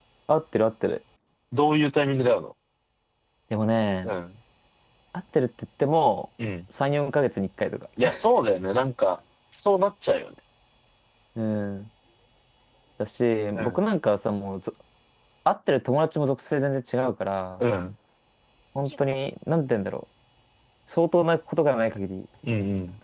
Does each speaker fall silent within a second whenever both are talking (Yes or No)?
Yes